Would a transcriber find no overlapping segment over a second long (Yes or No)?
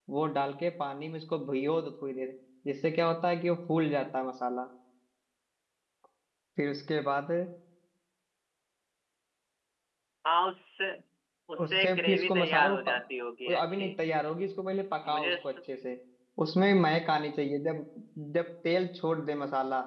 No